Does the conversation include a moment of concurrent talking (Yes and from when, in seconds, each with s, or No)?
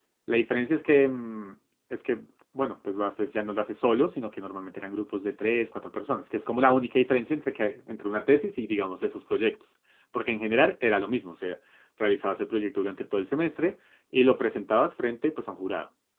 No